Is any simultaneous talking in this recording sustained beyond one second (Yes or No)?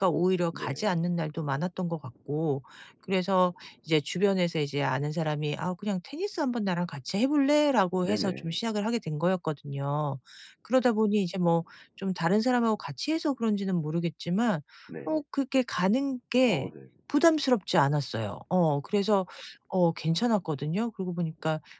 No